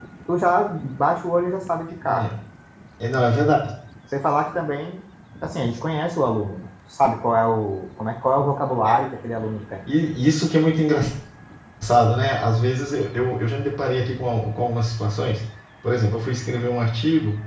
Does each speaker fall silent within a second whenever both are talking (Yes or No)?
Yes